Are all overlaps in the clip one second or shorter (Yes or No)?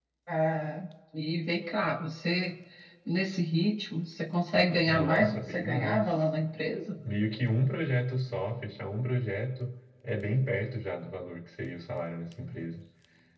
No